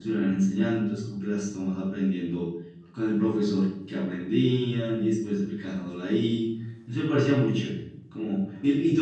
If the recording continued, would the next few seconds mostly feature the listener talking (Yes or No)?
No